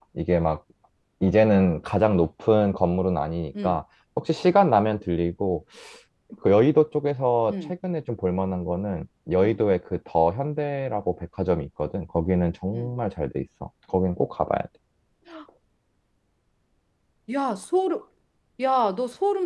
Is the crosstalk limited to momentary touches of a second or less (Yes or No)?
Yes